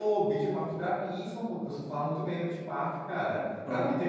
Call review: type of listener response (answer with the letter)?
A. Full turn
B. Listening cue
B